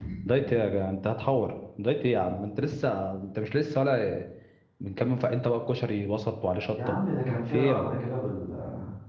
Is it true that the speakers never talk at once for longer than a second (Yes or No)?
Yes